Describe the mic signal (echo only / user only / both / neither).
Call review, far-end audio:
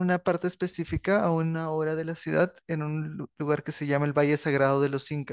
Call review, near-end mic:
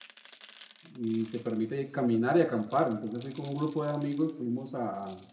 user only